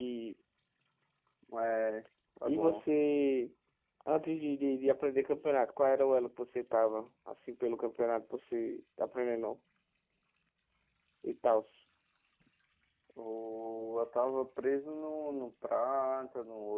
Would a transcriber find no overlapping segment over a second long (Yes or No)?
Yes